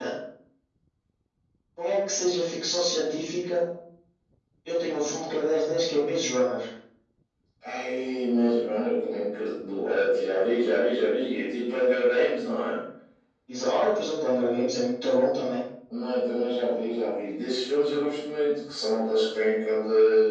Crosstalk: none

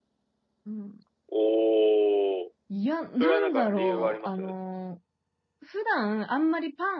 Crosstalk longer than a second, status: present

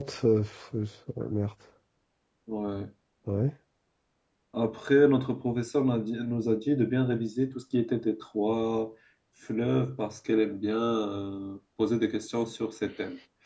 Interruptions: none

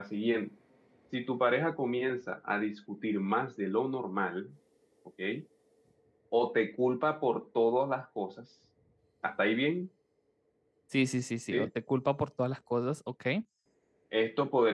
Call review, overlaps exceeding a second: none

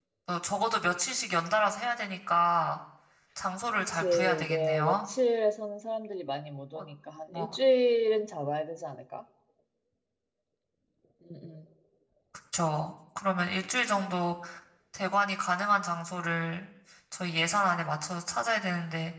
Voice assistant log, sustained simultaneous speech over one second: present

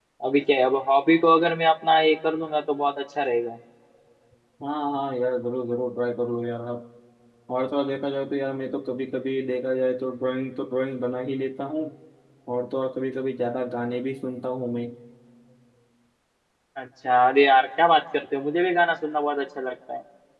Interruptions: none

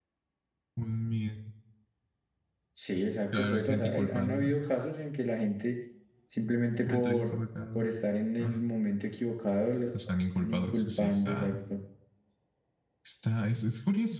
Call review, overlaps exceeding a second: present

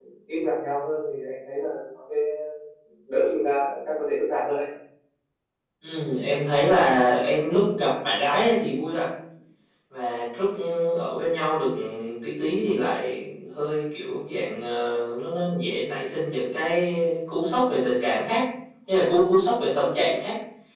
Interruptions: none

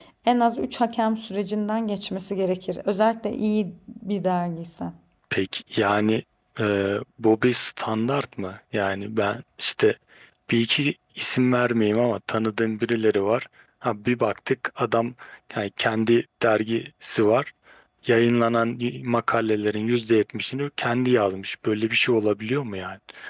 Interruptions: none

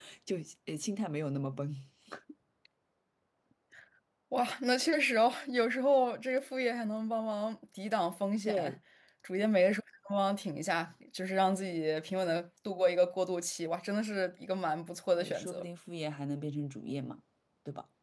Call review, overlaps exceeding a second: none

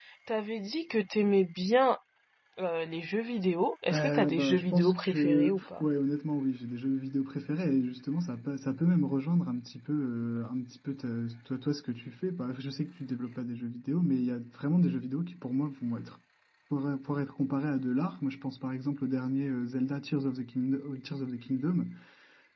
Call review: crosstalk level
present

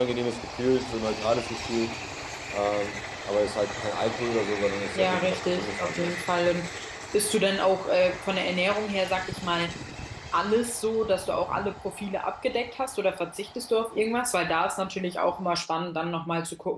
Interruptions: present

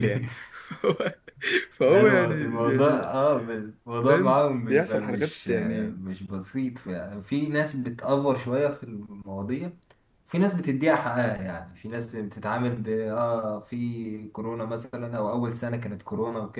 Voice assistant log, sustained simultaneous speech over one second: present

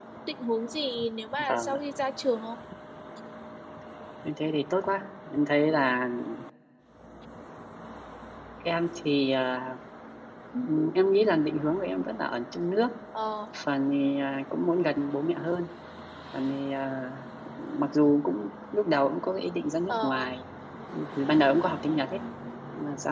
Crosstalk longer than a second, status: none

